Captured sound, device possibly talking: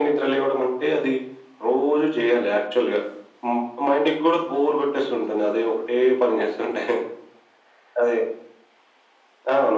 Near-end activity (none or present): none